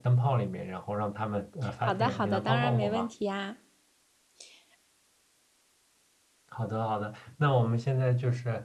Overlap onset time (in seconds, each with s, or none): 1.9 s